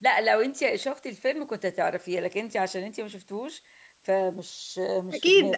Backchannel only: No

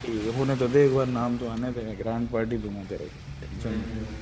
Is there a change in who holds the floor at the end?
Yes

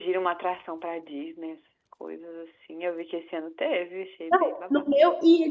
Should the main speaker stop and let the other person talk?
Yes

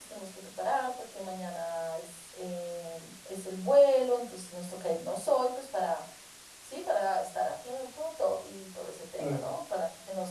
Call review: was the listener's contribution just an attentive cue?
Yes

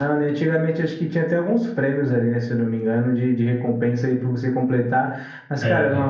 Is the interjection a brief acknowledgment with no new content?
Yes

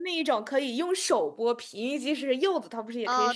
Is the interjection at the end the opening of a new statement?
Yes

